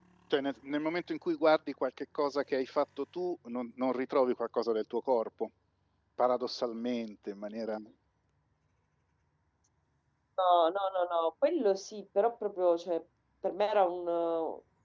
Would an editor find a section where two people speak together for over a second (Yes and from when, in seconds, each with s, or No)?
No